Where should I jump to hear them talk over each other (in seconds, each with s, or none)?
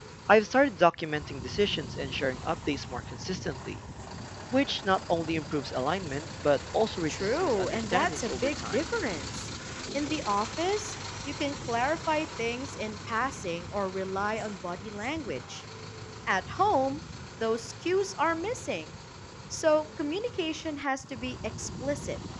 7.1 s